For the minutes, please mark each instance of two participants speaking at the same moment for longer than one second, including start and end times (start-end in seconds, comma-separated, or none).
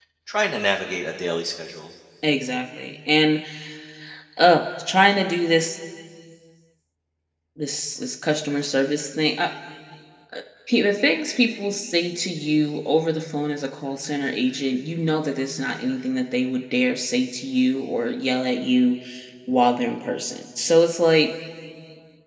none